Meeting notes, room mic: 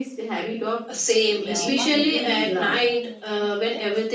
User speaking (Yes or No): Yes